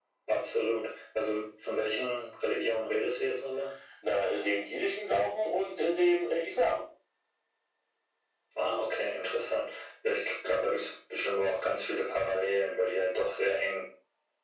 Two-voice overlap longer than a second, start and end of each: none

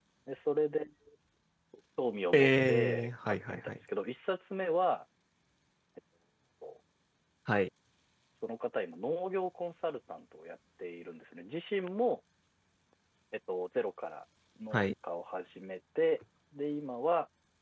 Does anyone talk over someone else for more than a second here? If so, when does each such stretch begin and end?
2.3-3.8

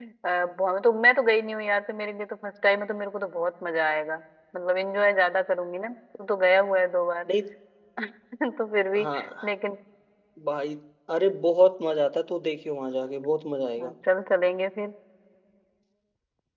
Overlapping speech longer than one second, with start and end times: none

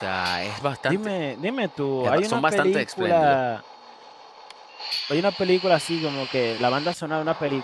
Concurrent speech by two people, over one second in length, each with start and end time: 2.0-3.4

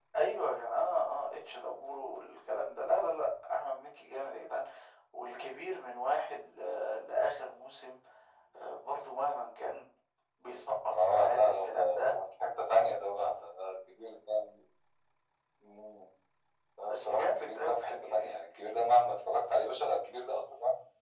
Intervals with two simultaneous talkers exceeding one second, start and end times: 10.9-12.2, 16.8-18.4

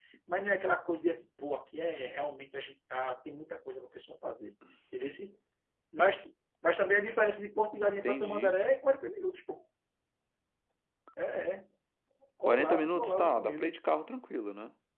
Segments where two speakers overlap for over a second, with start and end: 12.4-13.8

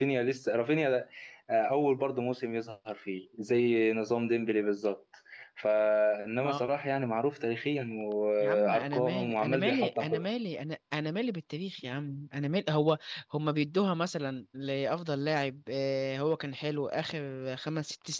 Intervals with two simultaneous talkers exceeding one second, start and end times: 8.4-10.2

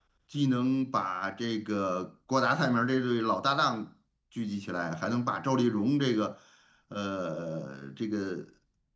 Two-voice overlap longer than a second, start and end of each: none

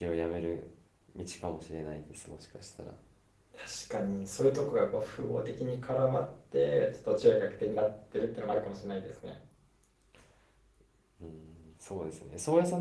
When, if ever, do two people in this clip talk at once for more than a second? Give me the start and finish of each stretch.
none

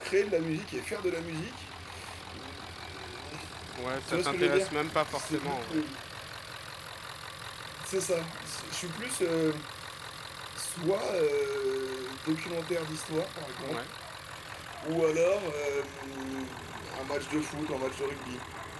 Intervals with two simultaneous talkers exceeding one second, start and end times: 4.1-5.6

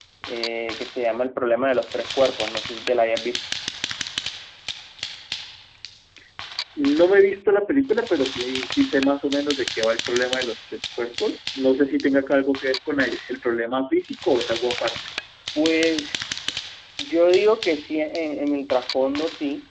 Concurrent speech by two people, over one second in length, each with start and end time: none

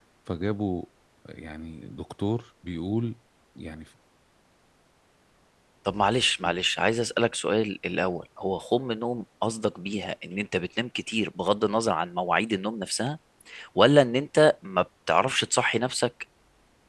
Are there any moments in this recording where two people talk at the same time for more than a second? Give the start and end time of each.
none

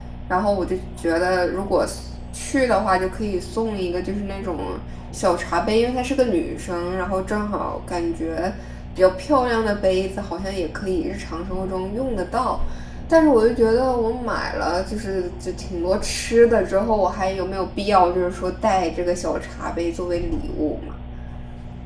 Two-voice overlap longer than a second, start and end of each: none

